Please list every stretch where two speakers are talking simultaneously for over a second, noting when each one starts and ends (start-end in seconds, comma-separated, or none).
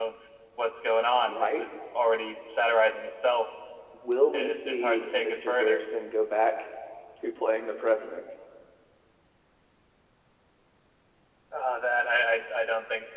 4.3-5.8